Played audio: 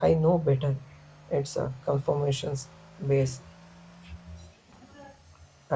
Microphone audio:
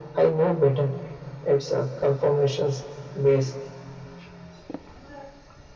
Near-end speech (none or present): none